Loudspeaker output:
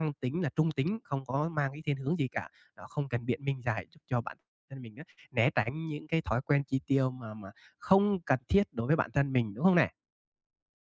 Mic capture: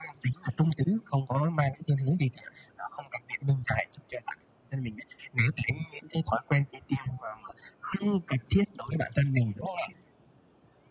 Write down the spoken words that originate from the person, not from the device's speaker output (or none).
none